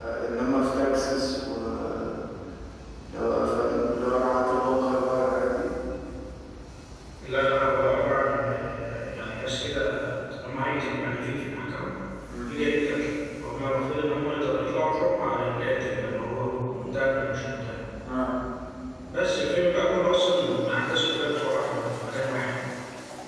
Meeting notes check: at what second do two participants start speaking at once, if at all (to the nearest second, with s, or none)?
none